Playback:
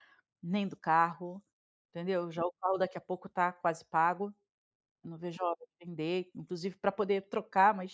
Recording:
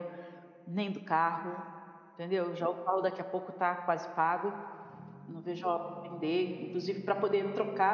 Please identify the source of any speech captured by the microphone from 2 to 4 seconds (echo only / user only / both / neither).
echo only